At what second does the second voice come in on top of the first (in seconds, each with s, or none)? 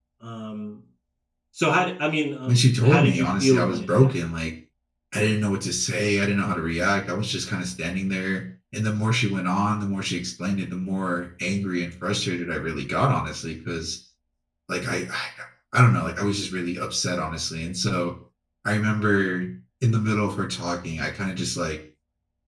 2.5 s